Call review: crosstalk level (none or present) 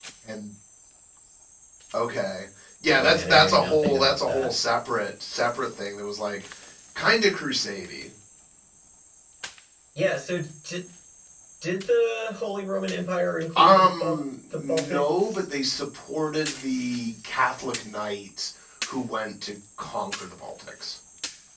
present